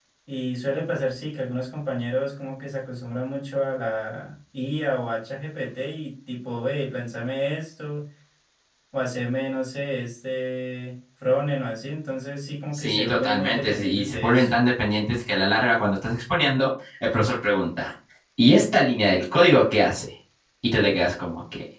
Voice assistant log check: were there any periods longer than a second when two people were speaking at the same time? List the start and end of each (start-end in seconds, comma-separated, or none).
12.7-14.5